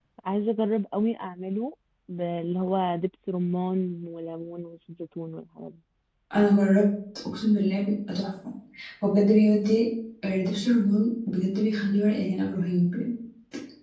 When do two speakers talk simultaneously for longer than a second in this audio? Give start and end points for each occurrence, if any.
none

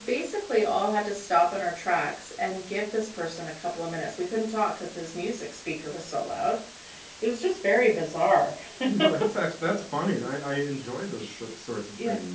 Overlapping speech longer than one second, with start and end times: none

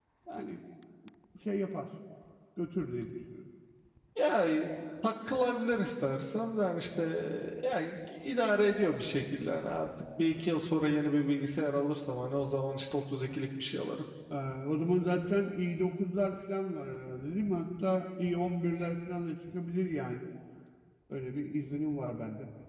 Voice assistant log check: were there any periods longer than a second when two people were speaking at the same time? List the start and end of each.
none

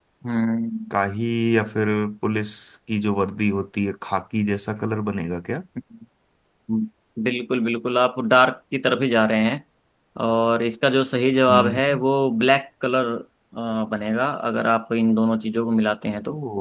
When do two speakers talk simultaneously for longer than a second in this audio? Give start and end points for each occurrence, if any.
none

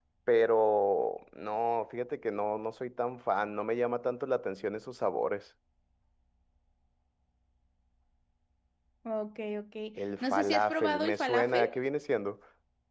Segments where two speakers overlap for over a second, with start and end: 10.3-11.6

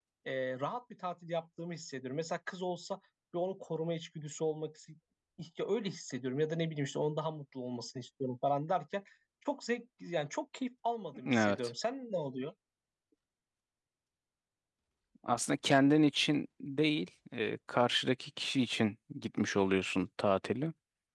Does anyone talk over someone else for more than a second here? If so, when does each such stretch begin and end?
none

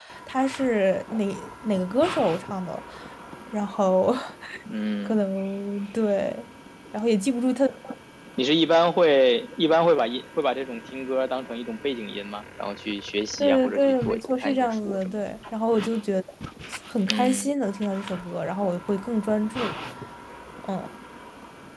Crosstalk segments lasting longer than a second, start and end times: 13.4-15.2

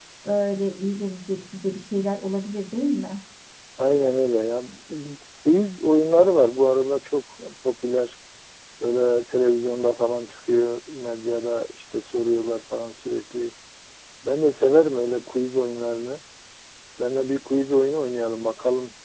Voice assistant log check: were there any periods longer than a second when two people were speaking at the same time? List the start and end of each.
none

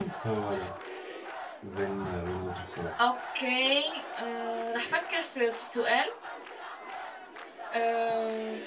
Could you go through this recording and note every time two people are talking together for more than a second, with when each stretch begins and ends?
none

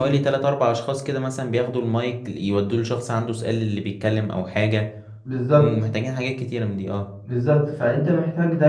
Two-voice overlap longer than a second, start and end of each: none

